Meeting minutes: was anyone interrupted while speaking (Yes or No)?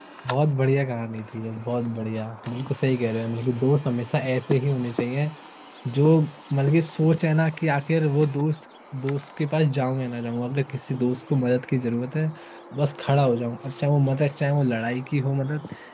No